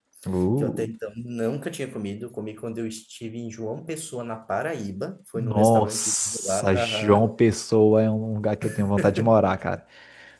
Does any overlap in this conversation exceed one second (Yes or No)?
Yes